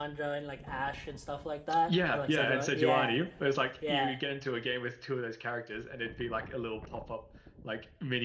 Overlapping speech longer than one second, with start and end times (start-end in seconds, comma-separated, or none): 1.9-3.2